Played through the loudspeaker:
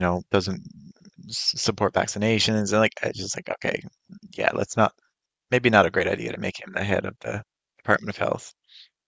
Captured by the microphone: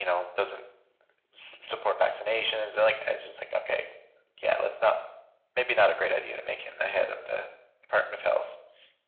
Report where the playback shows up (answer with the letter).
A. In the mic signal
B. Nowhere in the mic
A